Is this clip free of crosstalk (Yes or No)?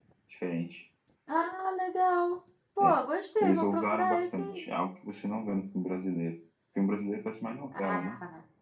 No